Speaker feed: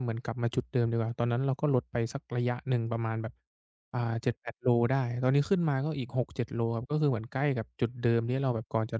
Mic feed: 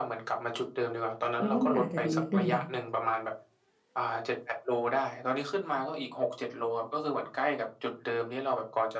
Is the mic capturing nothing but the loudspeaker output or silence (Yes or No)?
No